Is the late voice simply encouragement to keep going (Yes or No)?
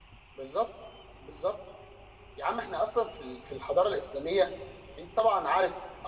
Yes